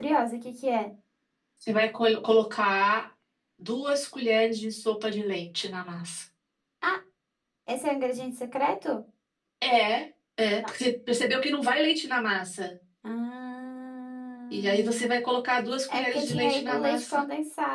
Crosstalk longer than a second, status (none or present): present